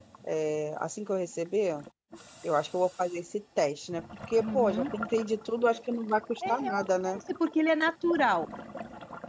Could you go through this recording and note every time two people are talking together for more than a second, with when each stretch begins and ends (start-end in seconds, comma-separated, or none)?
none